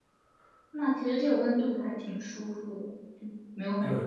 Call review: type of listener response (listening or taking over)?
taking over